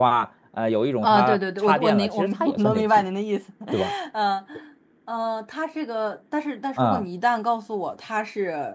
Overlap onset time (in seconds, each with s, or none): 1.0 s